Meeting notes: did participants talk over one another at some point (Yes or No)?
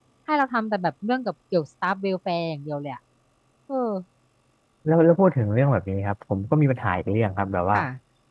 No